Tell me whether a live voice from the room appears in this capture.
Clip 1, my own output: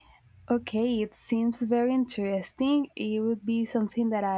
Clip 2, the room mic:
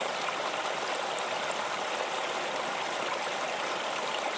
No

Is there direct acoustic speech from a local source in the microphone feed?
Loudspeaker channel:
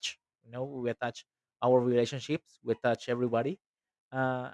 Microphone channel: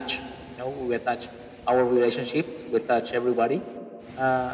No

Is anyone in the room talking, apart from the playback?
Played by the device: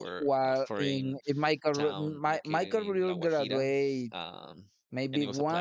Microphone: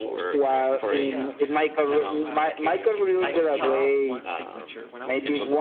Yes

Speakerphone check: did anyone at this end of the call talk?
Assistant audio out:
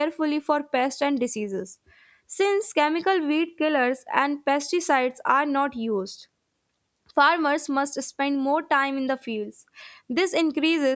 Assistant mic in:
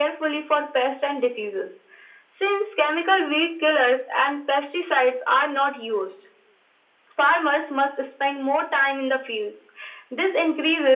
No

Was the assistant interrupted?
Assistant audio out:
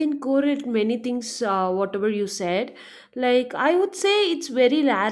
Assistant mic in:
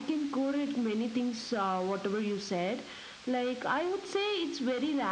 No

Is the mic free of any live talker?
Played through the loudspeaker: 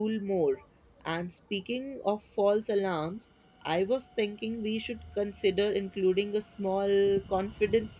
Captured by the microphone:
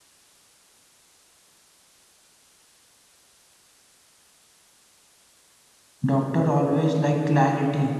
No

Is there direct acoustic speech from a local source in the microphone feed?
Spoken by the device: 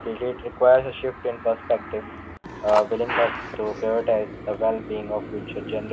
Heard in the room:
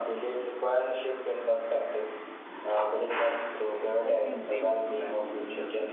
Yes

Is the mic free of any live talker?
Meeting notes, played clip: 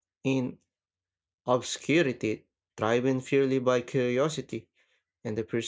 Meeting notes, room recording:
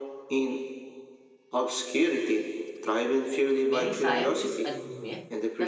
No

